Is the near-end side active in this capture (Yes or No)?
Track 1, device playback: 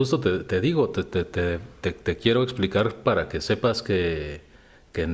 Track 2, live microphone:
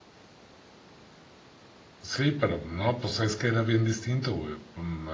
Yes